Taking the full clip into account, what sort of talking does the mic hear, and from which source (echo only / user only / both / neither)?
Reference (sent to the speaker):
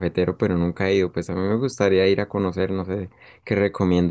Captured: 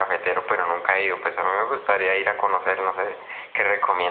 echo only